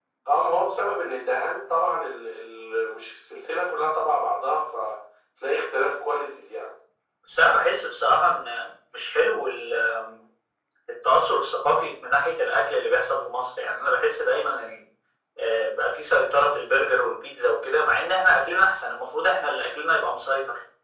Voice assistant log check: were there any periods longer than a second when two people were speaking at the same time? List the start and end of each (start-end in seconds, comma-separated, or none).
none